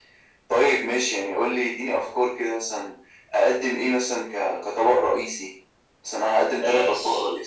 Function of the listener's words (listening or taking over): taking over